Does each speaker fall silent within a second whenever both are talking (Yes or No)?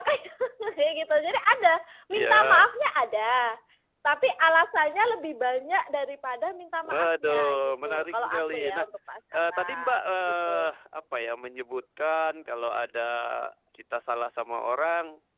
No